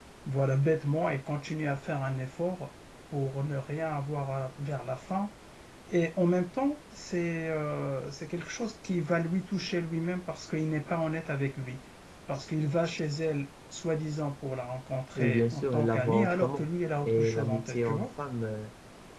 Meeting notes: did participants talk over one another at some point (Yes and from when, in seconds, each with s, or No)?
Yes, from 15.2 s